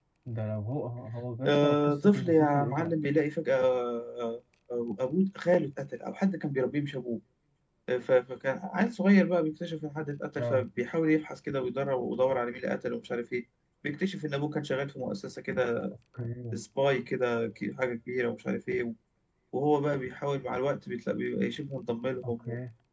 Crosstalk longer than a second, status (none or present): present